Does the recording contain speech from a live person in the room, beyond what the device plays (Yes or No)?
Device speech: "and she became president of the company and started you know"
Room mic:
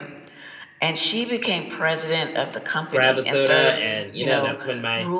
Yes